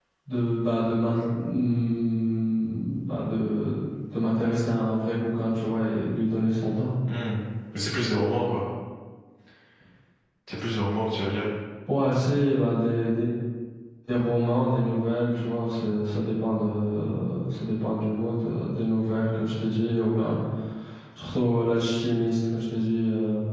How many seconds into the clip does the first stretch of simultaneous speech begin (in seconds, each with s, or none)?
none